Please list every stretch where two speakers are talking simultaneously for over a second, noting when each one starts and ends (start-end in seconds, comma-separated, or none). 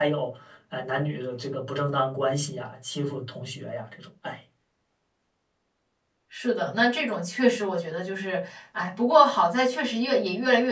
none